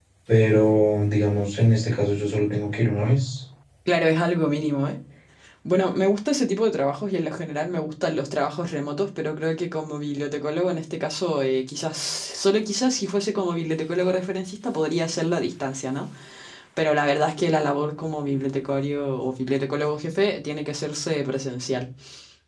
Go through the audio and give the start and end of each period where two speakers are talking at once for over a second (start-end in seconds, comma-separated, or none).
none